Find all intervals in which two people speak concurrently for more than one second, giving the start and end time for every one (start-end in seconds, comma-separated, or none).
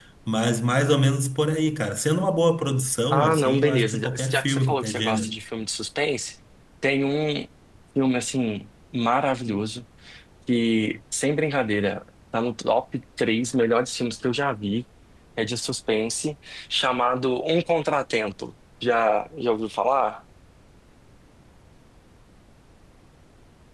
3.1-5.3